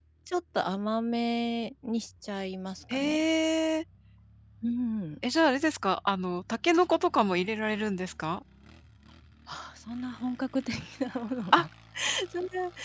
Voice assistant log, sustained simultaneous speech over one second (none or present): none